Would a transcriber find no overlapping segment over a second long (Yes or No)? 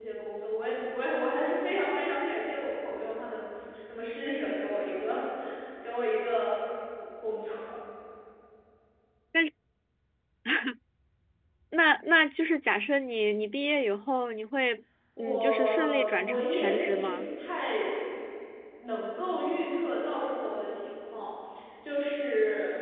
No